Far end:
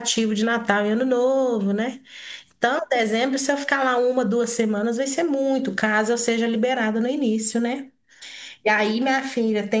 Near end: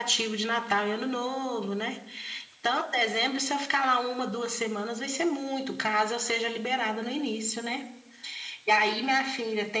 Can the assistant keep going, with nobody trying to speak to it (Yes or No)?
Yes